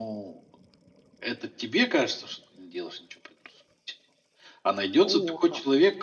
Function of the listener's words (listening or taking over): listening